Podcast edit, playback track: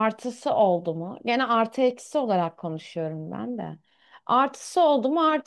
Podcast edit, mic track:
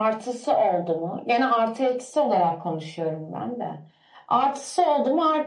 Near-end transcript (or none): none